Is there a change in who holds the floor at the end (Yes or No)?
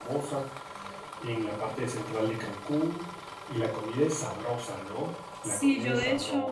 Yes